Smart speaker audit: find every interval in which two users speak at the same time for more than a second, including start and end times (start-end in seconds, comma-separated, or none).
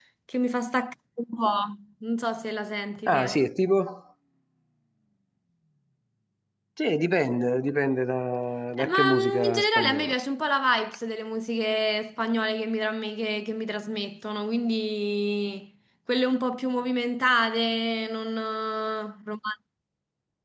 8.7-10.1